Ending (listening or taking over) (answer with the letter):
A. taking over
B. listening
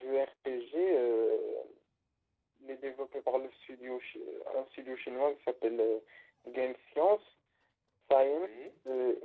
B